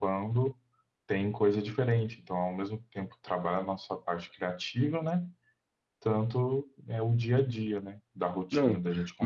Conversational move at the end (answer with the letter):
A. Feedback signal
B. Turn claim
B